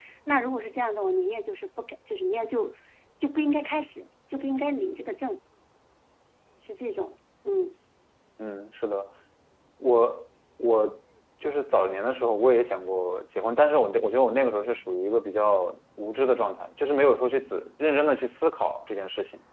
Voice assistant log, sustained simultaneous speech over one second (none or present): none